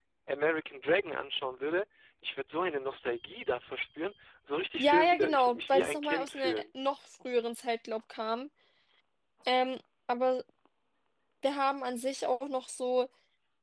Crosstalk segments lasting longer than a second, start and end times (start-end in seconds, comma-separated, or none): 4.8-6.6